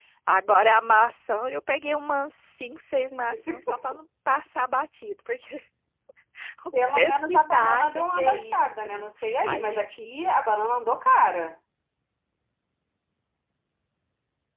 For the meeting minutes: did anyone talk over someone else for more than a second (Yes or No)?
Yes